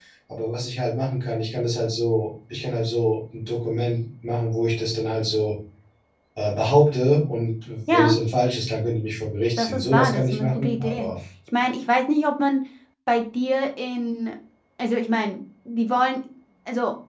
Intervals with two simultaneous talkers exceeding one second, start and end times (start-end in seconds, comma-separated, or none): 9.6-11.1